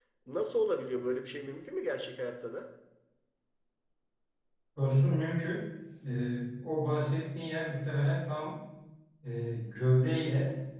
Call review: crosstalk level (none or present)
none